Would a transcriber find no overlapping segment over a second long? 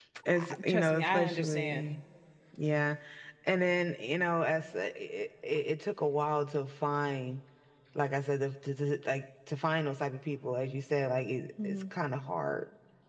No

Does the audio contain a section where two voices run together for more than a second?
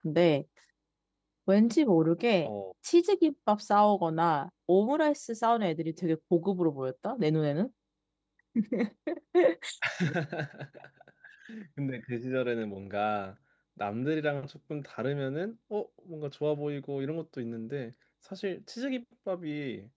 No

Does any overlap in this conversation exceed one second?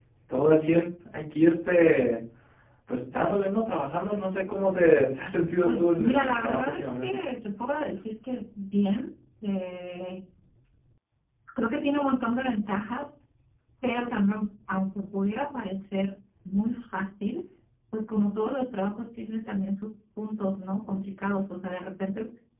Yes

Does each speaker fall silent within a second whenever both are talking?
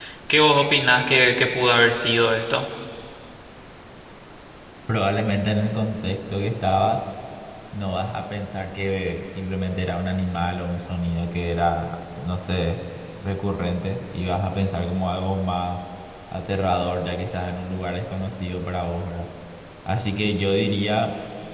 Yes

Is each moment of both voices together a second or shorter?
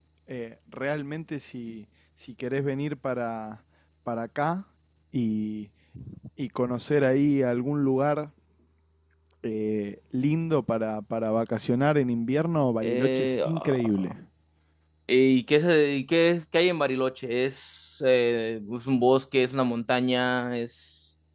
No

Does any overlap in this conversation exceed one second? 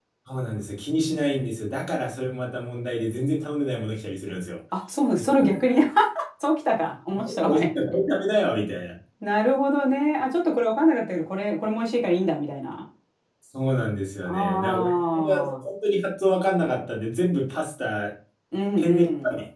Yes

